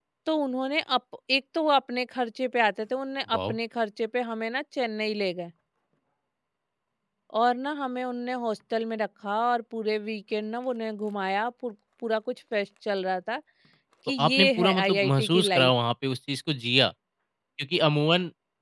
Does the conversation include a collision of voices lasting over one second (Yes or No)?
Yes